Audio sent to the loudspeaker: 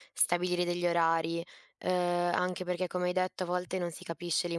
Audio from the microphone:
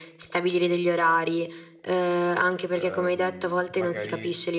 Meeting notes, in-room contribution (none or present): present